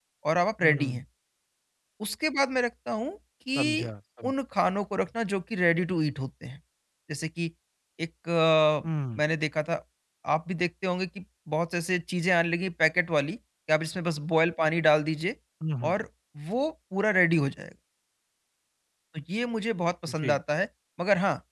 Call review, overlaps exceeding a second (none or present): none